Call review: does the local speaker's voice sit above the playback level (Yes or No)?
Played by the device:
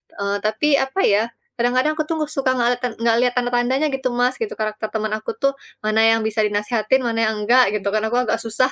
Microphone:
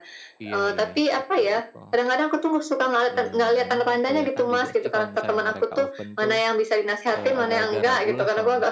No